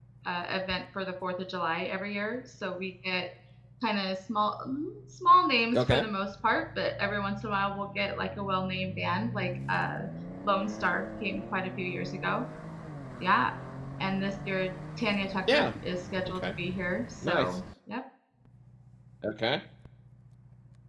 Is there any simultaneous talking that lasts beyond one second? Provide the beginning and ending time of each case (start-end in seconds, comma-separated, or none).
none